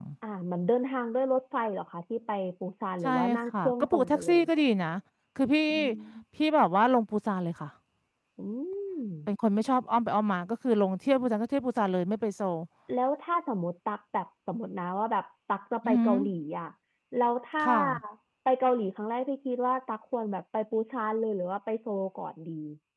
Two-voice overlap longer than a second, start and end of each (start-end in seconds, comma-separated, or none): 3.0-4.4